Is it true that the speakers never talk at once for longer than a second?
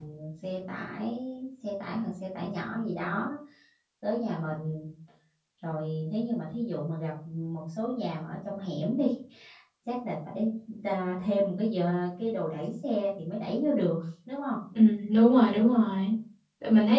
Yes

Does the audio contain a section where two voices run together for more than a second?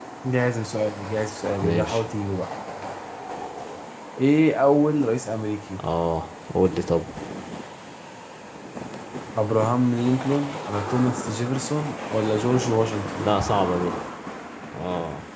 No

